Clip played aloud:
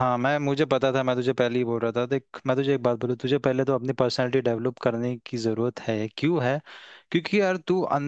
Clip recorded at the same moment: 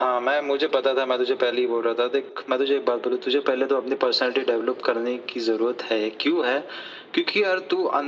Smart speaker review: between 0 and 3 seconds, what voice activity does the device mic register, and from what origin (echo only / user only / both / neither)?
echo only